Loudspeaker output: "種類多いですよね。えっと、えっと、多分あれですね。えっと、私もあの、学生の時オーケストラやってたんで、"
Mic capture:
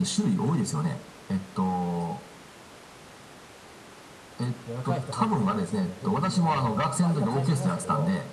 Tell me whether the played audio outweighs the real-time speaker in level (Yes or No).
Yes